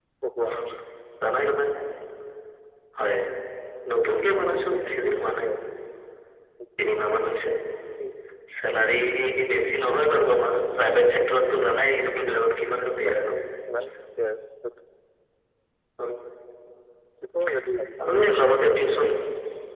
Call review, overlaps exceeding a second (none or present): none